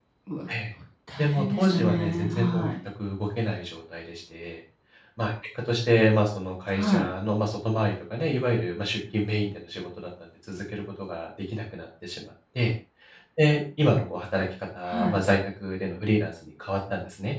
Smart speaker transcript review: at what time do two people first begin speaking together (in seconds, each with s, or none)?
1.2 s